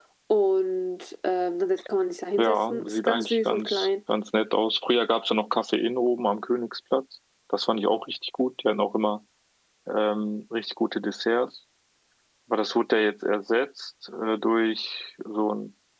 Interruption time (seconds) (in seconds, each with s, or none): 2.4 s